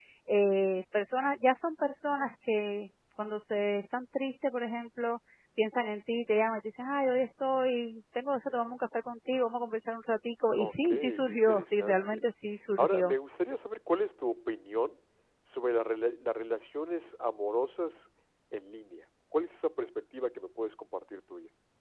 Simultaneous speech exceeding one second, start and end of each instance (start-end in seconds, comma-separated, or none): 10.6-12.2